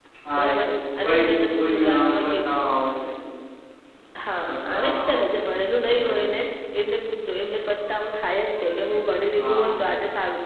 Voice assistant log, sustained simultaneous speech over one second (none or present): present